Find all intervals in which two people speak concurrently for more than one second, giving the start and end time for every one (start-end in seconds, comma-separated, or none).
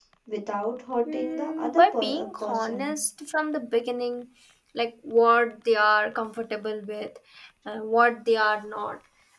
1.1-2.9